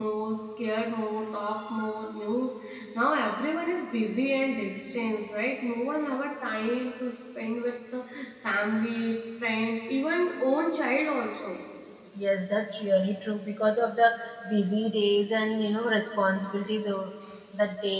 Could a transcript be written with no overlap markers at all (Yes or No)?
Yes